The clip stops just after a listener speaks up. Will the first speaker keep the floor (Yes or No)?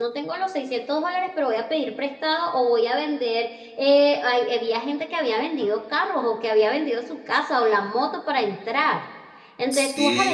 Yes